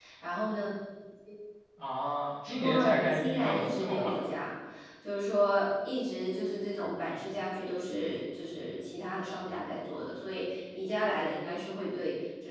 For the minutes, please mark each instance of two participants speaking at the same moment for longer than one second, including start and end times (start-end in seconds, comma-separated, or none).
2.6-4.2